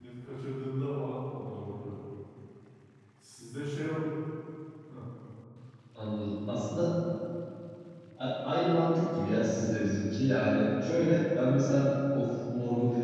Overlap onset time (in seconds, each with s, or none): none